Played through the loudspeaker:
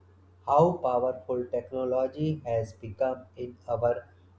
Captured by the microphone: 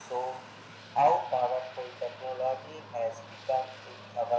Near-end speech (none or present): none